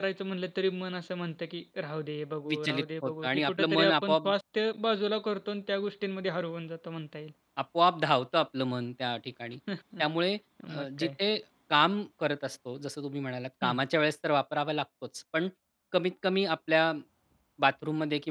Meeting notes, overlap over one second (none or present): present